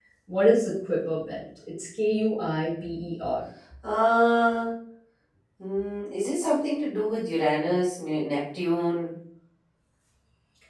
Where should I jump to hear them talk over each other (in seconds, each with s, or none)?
none